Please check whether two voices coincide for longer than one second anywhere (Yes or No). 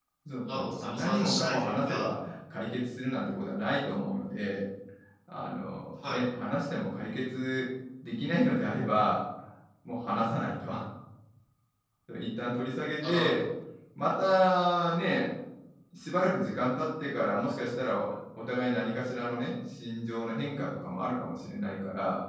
Yes